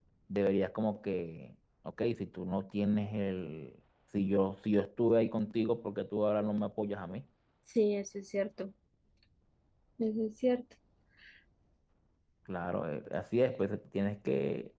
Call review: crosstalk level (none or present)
none